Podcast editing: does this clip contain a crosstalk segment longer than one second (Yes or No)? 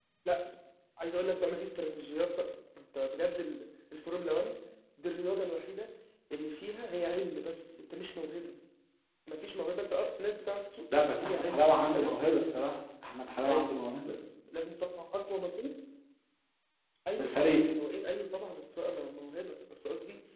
Yes